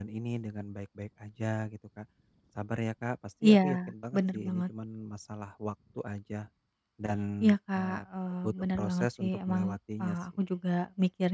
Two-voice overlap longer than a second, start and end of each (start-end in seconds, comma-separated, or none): 8.4-10.2